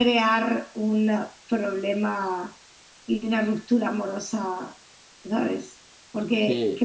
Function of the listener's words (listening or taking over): listening